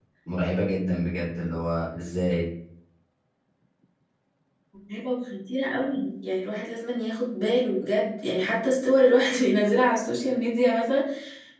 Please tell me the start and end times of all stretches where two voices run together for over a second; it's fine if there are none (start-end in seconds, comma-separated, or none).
none